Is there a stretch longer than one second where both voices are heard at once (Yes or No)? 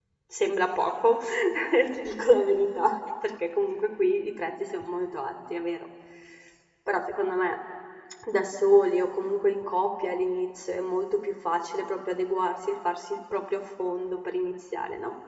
No